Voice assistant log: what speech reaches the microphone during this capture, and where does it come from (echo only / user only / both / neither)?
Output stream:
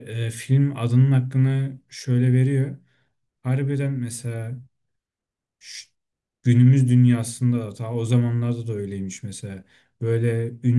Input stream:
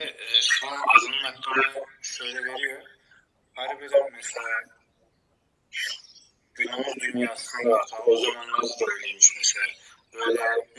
echo only